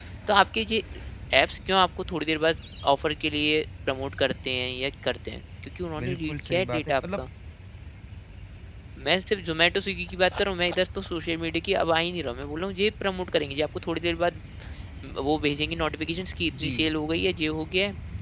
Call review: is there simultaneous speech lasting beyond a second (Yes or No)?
Yes